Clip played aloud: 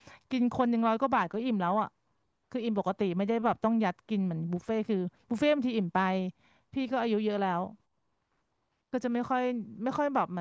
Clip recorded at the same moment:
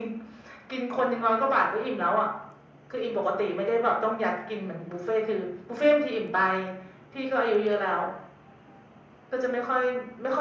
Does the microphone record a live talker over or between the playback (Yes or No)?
No